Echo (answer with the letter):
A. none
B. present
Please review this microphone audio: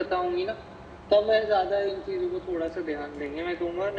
B